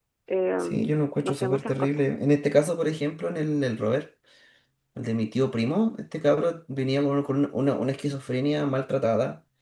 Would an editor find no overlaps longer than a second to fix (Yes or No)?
No